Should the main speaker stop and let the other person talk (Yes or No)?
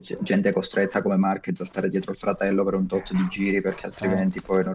No